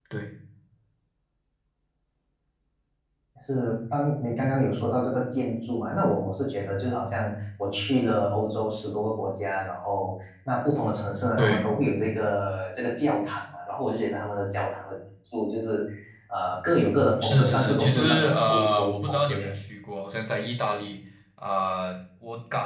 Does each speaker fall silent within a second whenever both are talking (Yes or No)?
No